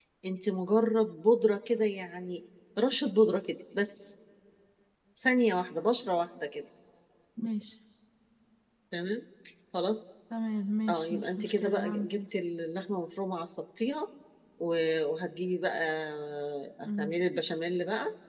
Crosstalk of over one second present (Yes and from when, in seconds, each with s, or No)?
Yes, from 10.9 s